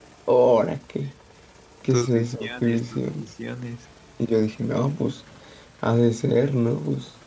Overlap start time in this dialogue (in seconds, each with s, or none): 1.9 s